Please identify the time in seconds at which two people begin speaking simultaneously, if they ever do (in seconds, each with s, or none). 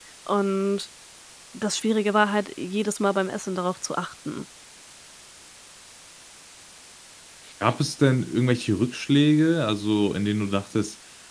none